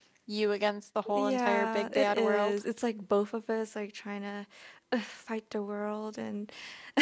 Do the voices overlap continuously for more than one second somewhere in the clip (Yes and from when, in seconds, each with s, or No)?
Yes, from 1.1 s